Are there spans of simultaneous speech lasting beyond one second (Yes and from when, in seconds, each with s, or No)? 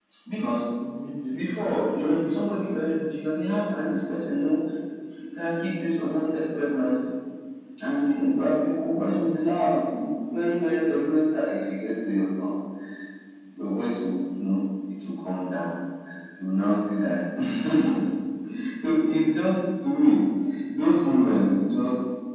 Yes, from 1.3 s